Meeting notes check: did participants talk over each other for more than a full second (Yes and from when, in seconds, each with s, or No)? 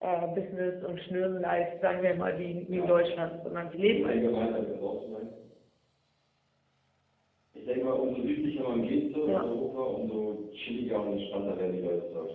Yes, from 2.7 s